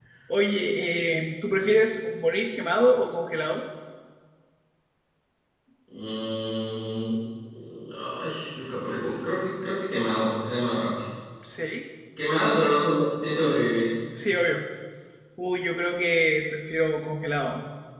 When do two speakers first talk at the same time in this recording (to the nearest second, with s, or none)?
none